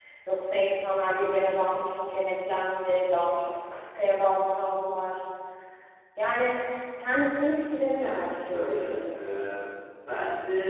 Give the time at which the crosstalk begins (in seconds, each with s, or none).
7.9 s